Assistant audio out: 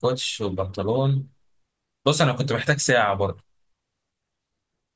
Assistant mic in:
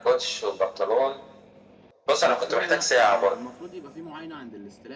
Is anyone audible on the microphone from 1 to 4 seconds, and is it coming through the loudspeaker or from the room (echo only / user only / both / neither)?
both